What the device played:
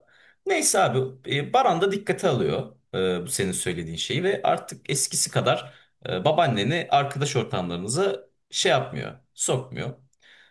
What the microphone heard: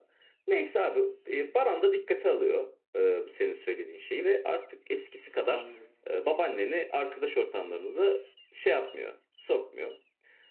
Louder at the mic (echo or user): echo